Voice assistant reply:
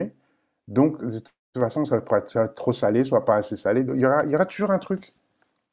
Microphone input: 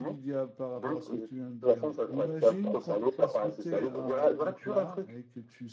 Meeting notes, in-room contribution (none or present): present